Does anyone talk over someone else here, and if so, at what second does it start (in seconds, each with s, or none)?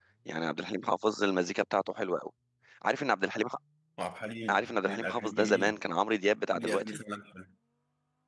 4.5 s